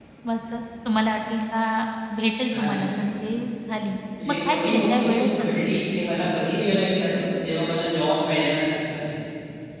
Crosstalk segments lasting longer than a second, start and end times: 4.3-5.7

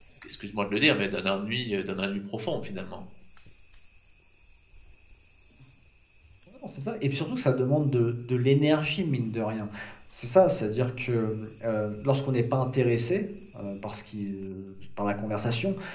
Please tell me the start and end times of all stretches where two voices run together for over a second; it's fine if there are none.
none

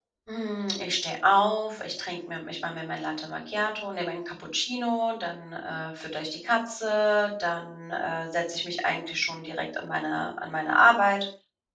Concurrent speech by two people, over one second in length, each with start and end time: none

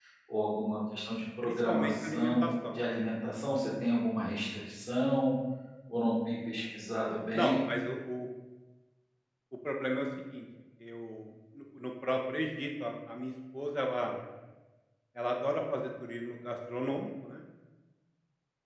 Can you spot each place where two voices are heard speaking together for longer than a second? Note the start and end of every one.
1.4-2.7

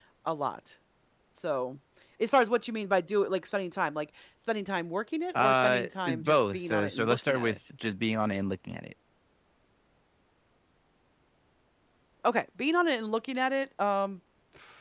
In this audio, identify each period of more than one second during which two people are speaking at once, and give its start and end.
5.3-7.6

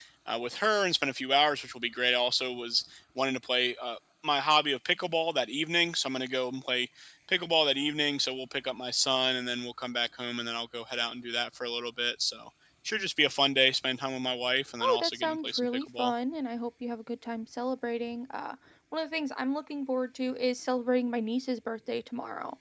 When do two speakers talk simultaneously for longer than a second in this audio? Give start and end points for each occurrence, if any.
14.8-16.1

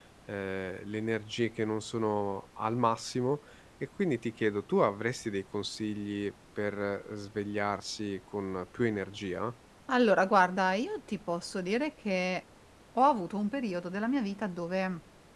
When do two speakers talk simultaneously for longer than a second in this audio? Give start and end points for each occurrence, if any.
none

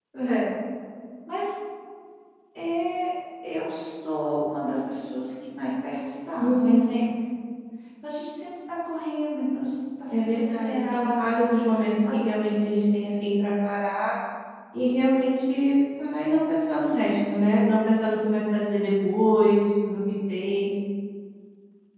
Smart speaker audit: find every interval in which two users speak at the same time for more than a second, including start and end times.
10.1-11.4

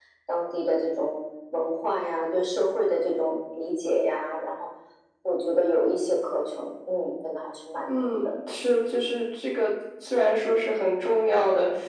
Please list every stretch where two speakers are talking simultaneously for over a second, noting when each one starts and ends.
none

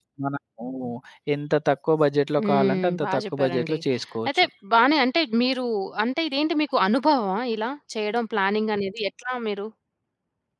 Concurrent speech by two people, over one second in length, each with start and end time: 2.4-3.8

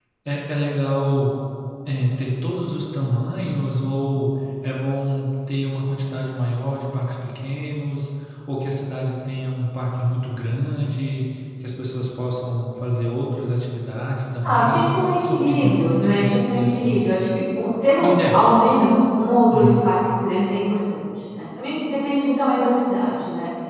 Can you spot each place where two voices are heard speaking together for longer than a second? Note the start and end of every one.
14.4-17.0

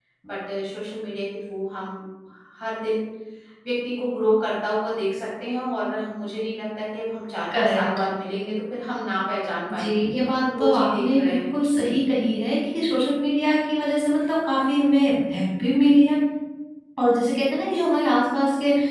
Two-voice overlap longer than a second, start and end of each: 9.7-12.0

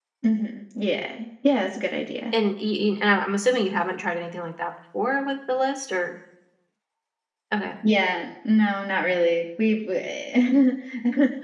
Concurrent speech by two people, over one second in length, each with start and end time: none

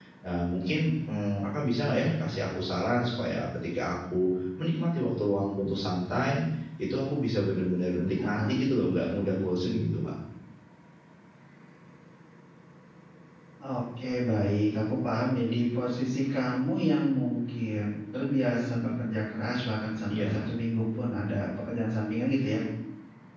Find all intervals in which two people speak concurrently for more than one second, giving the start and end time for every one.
none

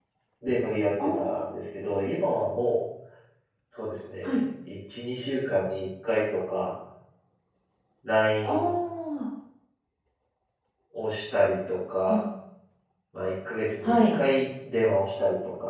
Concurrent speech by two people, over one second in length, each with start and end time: none

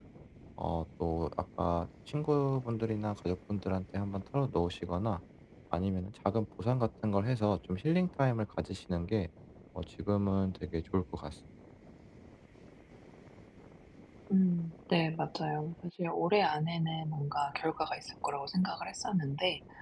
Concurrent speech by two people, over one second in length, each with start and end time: none

